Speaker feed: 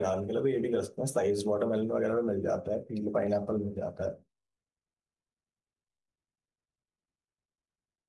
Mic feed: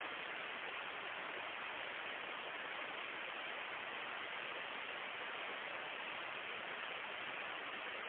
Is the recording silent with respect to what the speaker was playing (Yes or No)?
Yes